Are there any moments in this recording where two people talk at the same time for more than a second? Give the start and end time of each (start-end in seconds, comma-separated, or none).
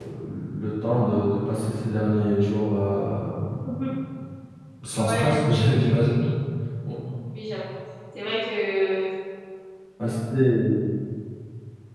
4.9-6.2